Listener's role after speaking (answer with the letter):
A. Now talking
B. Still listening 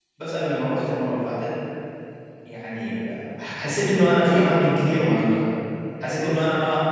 B